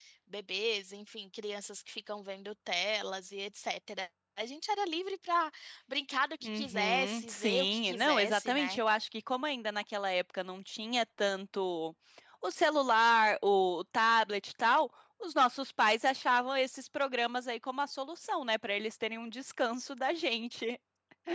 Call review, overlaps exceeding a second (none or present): present